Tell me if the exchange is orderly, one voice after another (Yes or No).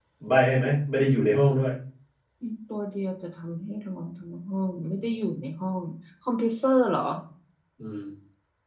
Yes